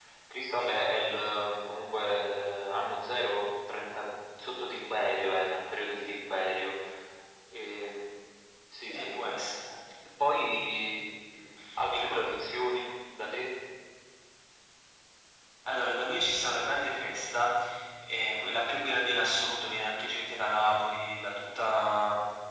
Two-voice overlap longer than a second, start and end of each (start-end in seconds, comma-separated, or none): none